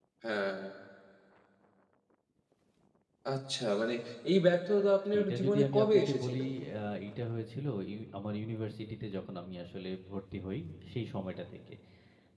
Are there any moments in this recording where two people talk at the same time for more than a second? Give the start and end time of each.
5.1-6.4

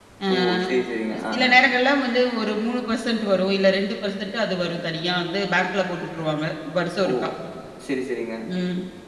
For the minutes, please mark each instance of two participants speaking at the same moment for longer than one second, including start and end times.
none

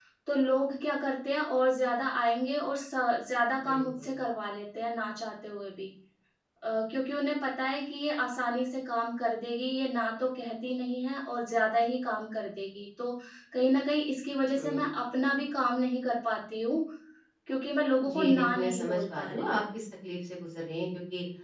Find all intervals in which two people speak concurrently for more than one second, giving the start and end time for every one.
18.1-19.6

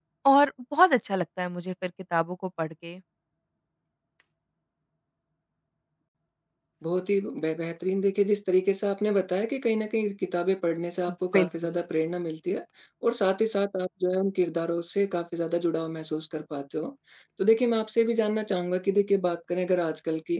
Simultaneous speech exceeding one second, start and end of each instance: none

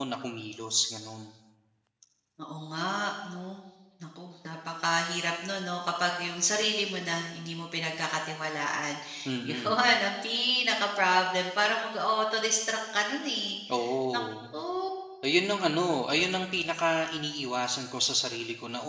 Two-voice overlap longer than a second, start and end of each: none

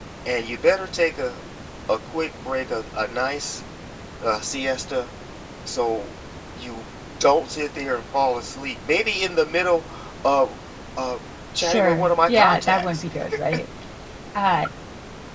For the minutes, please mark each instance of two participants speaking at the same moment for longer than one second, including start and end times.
11.6-13.0

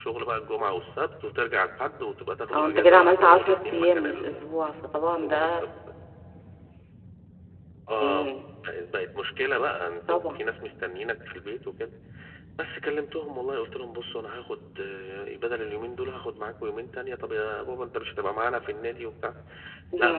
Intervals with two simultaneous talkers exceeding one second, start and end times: 2.5-4.4

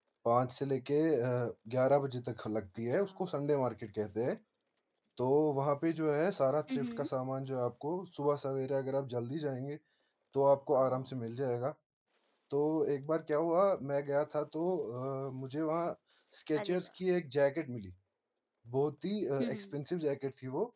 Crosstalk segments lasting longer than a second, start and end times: none

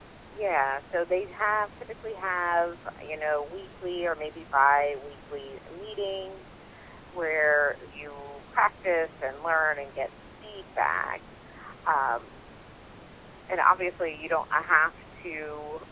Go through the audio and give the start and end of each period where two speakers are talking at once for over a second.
none

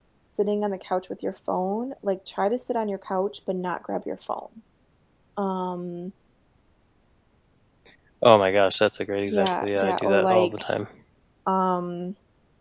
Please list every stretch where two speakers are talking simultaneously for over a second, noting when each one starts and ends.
9.3-10.6

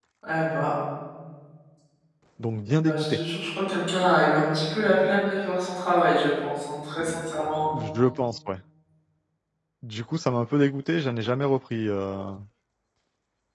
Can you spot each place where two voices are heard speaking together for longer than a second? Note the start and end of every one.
none

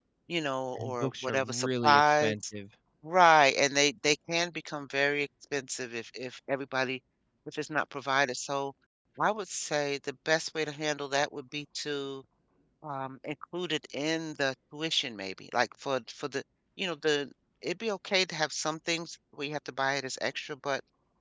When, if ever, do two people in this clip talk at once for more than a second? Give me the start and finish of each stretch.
0.7-2.4

